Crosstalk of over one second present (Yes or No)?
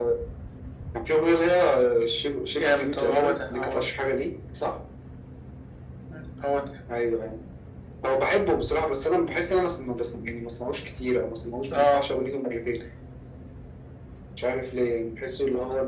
Yes